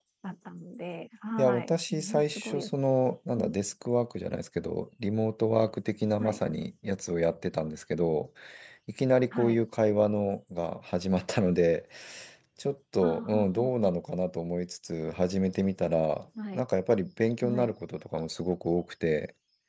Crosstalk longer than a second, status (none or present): present